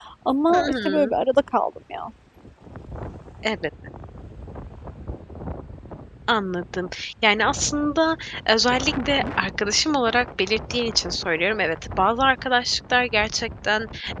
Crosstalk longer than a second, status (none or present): none